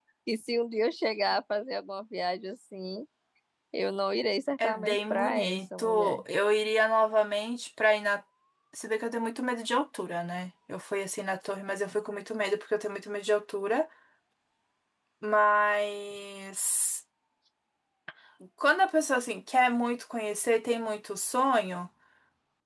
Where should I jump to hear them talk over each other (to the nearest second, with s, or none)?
5 s